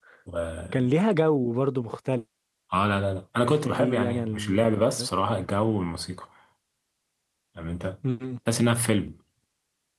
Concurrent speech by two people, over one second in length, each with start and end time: 3.6-5.1

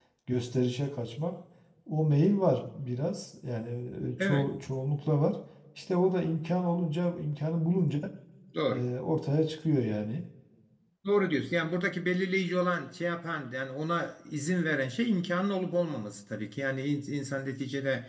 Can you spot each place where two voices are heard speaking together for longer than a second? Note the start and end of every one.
none

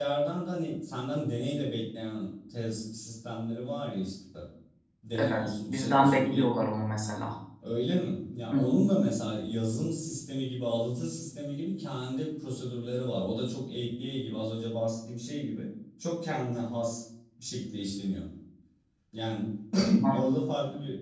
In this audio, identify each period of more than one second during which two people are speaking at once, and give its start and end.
5.2-6.5

